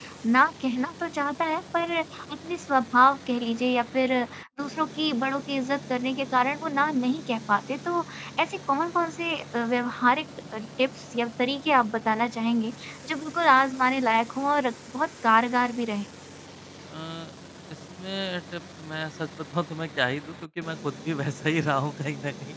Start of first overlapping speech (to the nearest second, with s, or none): none